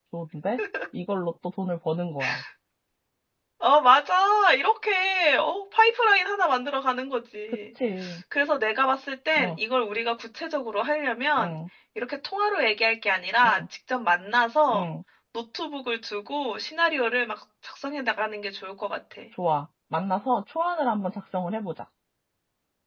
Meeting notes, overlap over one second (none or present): none